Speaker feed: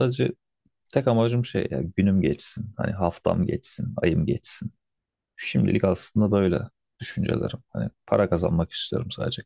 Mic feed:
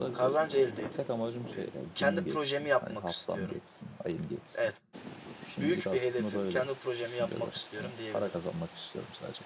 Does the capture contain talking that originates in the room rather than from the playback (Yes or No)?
Yes